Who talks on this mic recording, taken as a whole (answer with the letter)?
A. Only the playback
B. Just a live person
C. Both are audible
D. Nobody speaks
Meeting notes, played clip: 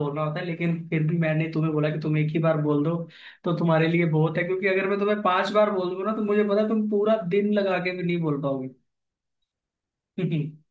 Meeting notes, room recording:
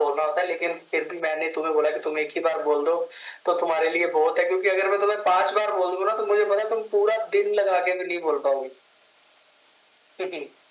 A